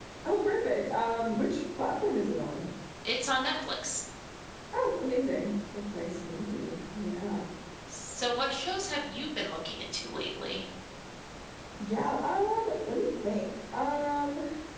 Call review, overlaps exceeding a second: none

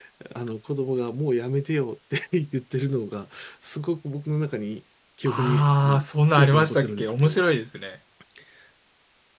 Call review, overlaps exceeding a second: present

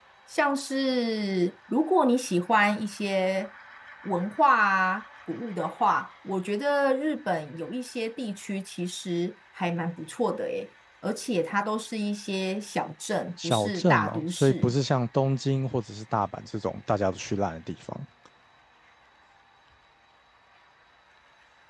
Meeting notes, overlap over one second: present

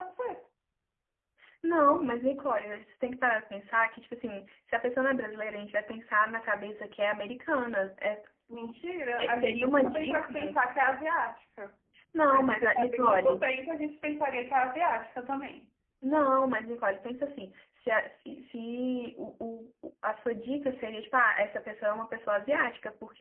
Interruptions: present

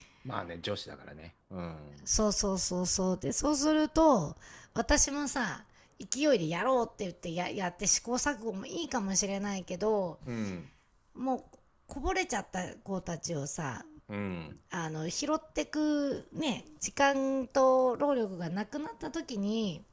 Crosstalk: none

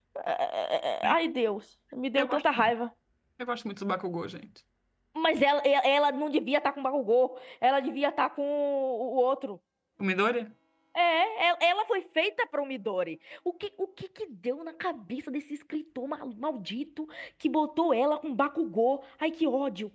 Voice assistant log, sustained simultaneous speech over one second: none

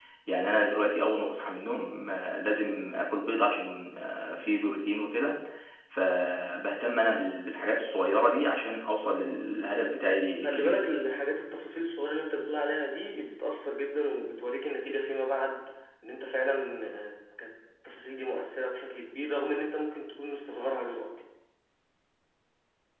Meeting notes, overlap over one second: none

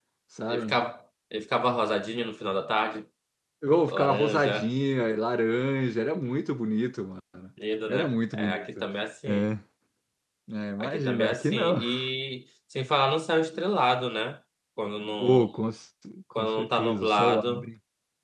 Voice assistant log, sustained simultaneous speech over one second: present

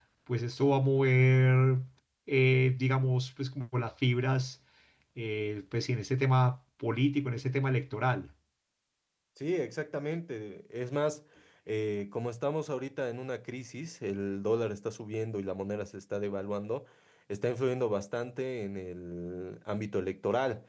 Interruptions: none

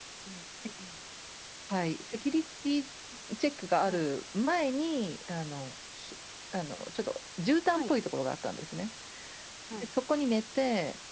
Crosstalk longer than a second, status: none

